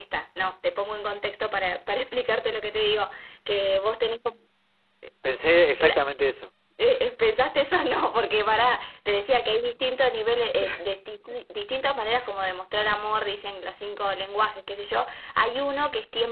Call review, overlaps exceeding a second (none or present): none